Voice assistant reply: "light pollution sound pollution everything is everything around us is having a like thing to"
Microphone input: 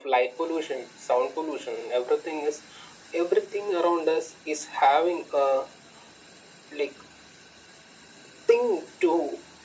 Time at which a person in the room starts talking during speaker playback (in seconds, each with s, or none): none